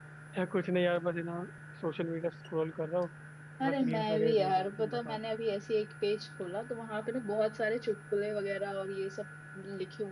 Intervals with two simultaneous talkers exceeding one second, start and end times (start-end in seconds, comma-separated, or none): 3.6-5.2